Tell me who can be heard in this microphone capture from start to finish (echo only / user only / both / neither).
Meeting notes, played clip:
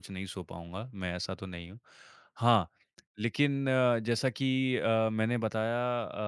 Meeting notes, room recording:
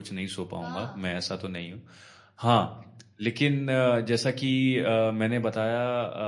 both